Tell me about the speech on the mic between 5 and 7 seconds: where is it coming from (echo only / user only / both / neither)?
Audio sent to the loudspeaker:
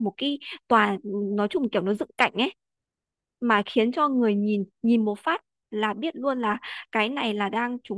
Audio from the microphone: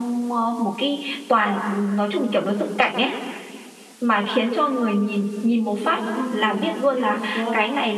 both